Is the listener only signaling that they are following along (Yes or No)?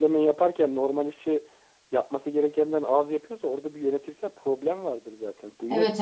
No